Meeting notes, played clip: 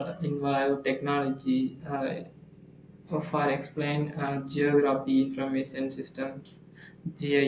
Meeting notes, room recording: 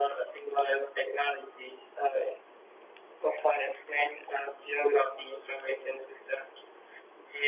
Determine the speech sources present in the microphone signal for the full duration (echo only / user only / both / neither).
echo only